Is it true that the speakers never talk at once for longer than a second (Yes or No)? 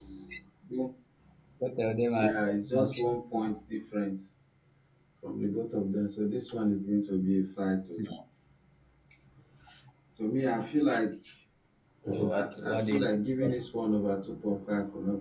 No